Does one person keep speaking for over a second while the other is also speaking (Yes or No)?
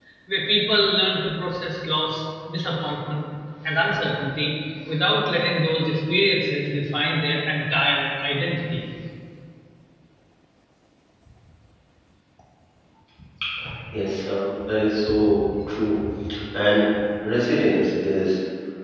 No